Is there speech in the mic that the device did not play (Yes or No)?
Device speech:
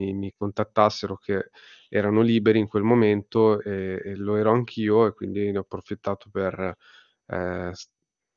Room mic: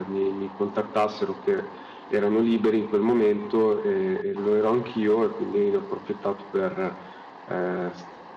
No